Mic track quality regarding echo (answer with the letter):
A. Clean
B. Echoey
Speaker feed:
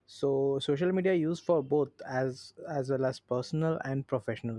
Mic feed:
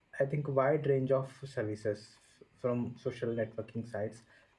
A